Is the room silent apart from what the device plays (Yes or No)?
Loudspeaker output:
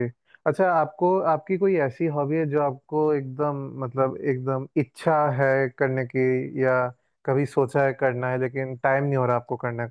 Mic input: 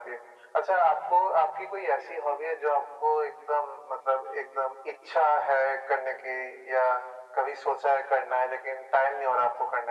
Yes